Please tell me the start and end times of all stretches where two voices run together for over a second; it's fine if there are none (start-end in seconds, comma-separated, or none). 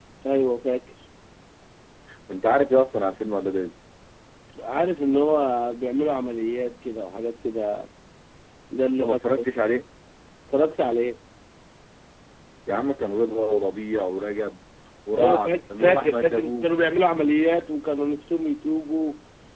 15.2-16.7